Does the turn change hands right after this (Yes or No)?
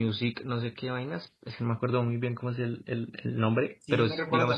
Yes